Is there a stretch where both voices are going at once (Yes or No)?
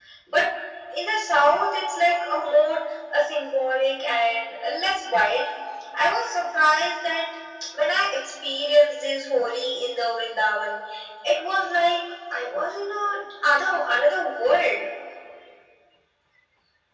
No